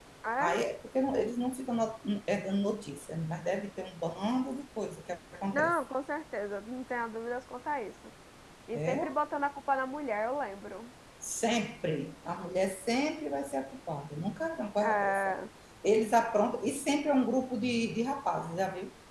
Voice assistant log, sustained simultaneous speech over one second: none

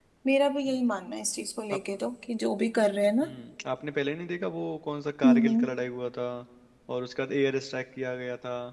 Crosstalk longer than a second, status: none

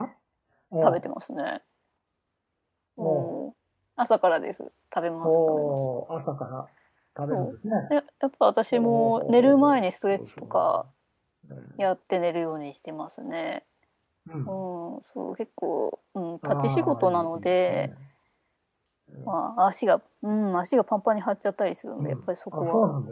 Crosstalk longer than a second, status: present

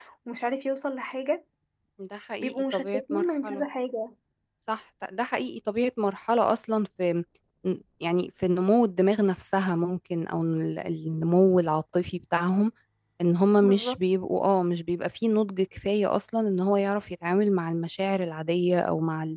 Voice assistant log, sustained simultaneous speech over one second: present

